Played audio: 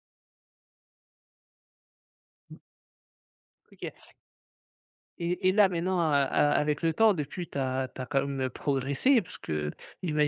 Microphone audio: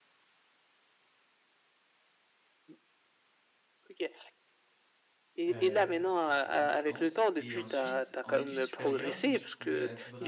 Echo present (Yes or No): Yes